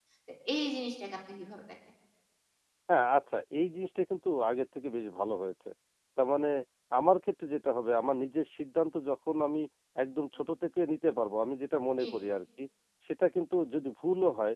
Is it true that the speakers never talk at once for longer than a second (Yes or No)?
Yes